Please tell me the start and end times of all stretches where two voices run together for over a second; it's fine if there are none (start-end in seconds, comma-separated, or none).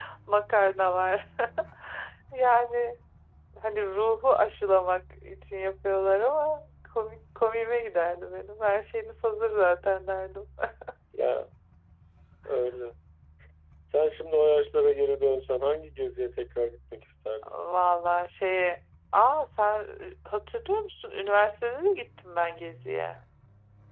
none